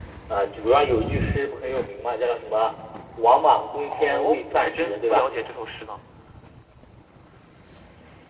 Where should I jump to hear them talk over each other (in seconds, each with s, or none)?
3.9 s